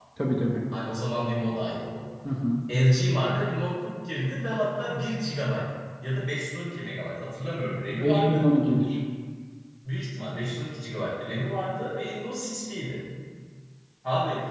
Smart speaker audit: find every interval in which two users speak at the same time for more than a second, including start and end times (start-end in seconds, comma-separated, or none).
none